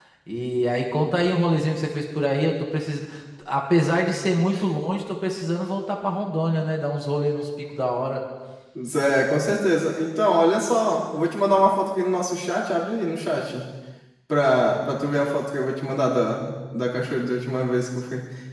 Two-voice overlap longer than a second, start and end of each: none

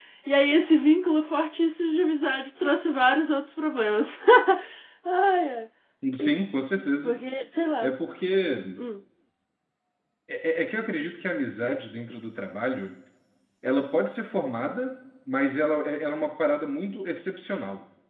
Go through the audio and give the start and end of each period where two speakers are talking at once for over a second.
none

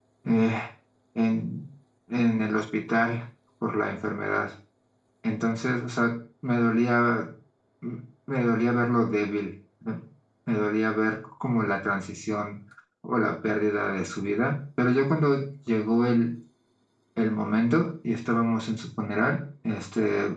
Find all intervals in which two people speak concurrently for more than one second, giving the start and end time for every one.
none

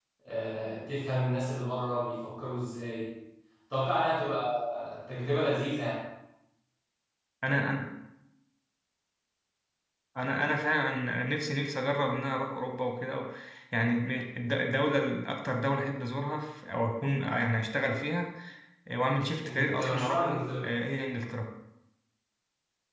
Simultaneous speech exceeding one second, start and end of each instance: 19.4-20.7

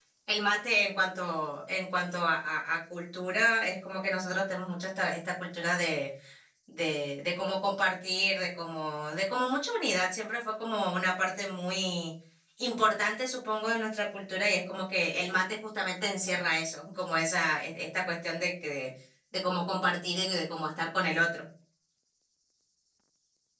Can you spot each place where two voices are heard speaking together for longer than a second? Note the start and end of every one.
none

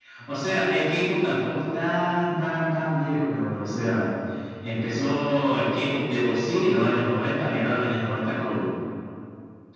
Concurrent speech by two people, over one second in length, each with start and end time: none

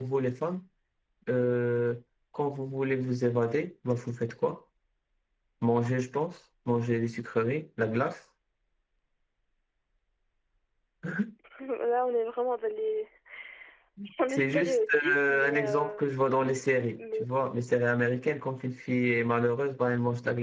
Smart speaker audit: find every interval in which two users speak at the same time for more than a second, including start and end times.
14.3-16.0

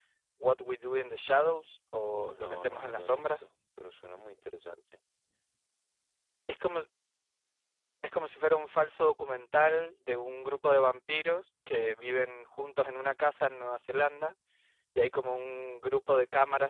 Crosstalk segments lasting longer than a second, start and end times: 2.2-3.5

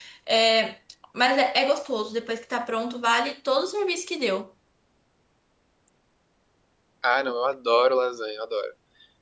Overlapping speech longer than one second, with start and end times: none

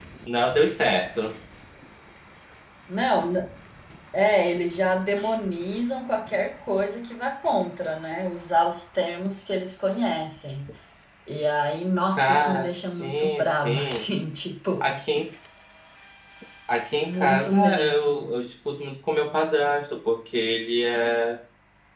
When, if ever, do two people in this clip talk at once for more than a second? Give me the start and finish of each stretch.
12.2-14.0, 17.0-18.3

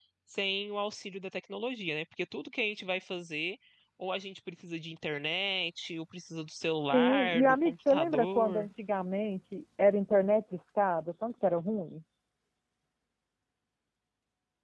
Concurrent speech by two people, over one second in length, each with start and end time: 6.9-8.7

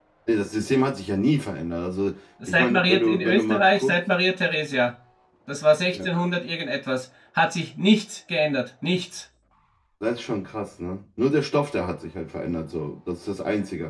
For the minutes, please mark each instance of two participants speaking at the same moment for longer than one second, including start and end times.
2.5-4.0

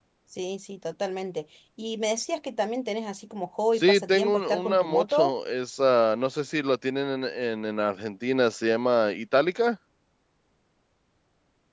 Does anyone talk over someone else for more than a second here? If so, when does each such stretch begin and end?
3.8-5.3

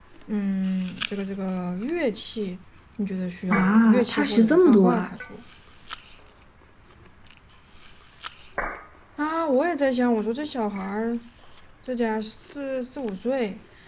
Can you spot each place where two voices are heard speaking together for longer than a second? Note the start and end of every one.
3.5-5.1

